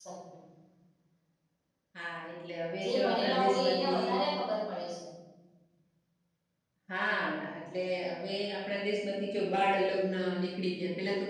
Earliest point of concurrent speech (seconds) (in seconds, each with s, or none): 2.8 s